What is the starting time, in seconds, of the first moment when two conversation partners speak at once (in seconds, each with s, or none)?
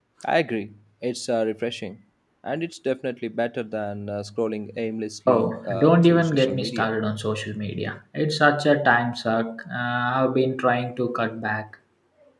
5.3 s